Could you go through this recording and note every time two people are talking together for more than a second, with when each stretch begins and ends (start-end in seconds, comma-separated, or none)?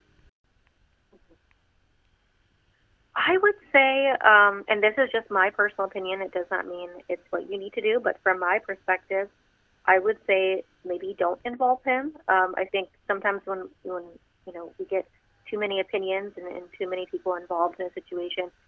none